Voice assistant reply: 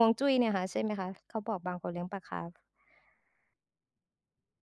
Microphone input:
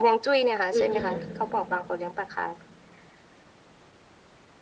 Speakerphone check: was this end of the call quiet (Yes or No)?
No